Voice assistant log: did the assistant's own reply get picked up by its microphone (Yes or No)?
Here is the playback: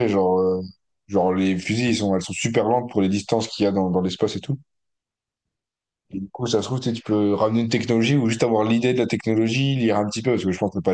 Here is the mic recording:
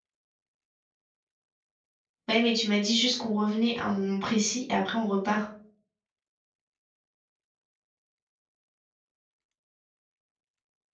No